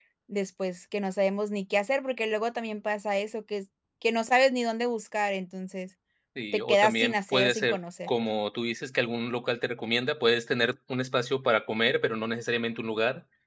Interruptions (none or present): present